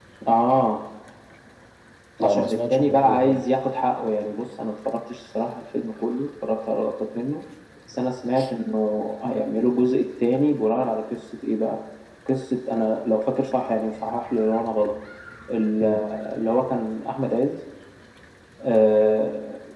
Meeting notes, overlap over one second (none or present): present